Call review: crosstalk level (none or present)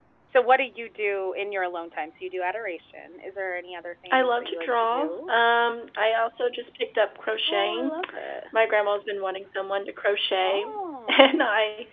present